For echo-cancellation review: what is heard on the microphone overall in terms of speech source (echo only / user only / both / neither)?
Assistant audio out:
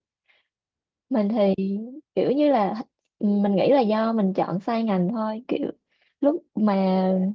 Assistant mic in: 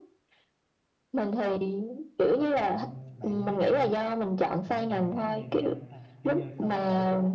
both